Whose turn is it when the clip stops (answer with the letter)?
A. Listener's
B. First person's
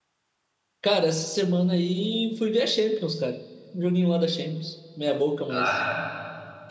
A